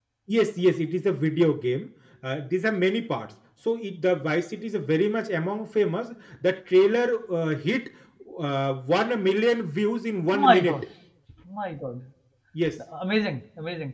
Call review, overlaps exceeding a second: none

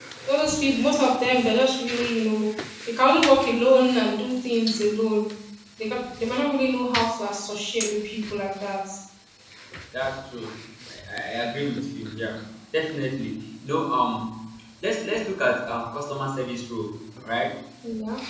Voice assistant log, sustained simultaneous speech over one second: none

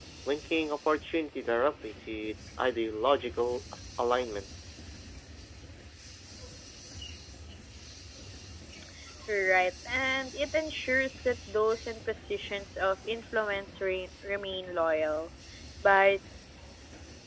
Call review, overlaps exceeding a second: none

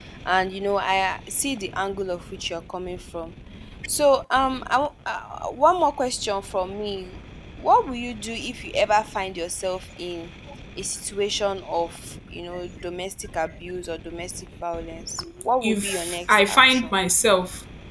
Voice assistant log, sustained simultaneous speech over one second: present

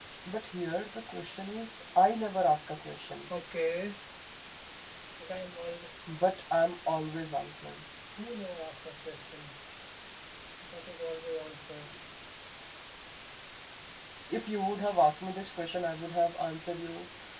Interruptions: none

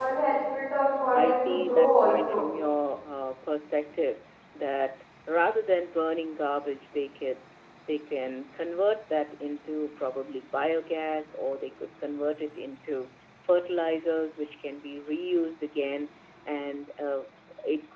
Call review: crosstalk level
present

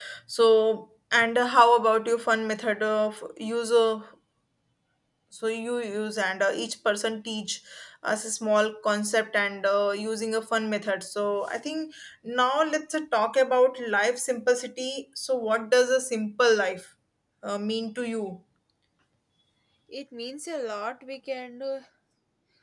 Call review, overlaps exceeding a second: none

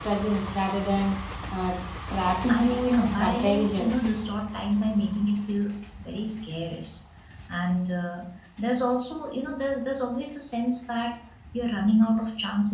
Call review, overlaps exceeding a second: present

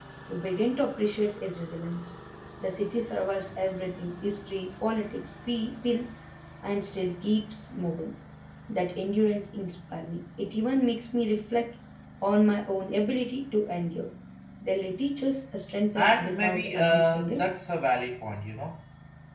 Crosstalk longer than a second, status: present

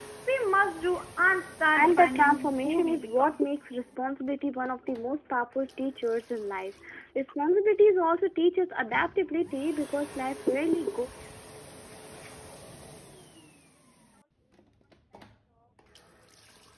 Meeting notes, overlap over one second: present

